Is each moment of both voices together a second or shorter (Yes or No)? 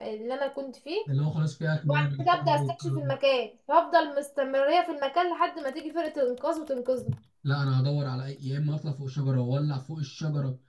No